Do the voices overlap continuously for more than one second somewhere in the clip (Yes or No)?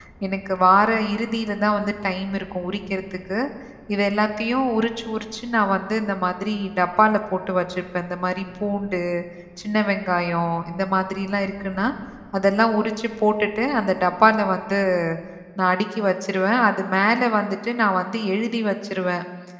No